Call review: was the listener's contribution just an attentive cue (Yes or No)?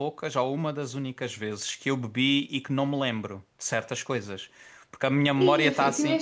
No